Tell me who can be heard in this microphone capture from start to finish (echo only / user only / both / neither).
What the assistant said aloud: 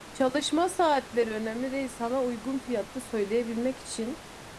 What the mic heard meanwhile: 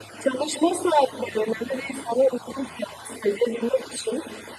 echo only